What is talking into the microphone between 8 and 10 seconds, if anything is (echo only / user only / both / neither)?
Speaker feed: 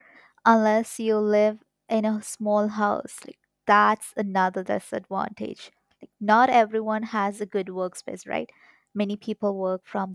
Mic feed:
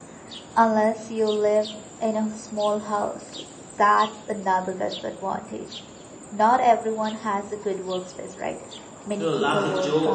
both